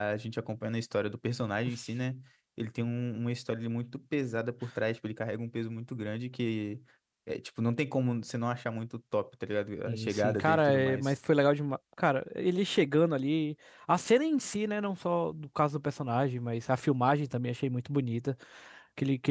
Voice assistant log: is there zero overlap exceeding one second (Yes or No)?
No